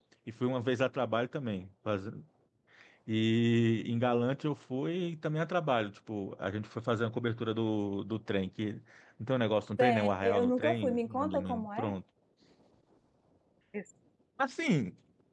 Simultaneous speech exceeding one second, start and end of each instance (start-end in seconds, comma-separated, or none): 9.8-11.9